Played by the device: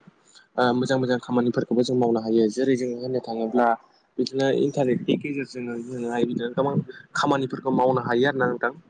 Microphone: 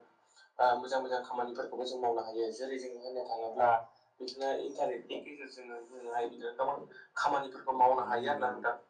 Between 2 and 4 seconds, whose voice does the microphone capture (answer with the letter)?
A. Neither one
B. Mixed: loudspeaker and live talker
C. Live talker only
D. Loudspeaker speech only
D